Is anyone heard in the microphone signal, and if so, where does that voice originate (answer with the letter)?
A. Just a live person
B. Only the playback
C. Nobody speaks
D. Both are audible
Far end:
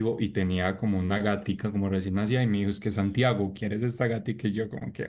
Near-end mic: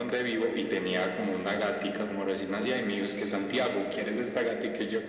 B